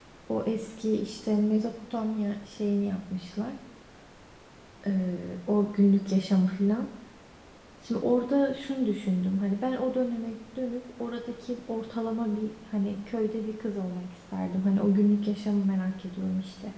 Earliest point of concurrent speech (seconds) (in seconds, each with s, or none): none